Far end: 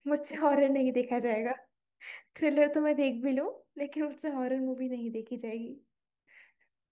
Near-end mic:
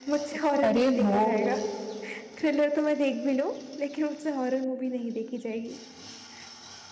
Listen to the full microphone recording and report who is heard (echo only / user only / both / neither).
both